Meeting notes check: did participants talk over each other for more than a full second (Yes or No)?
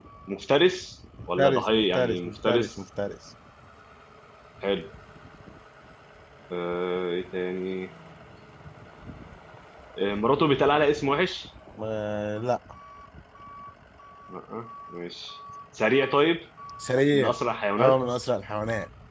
Yes